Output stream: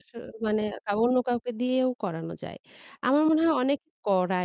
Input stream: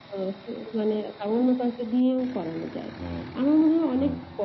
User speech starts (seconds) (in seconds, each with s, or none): 3.0 s